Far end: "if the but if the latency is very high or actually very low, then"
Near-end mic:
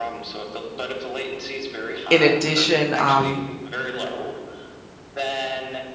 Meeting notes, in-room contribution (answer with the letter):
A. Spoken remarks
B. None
A